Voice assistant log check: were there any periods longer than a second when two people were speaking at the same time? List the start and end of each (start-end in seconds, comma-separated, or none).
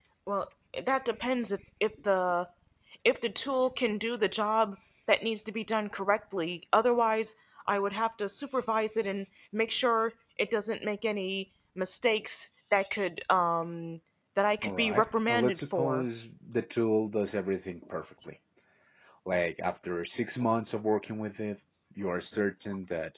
14.6-16.1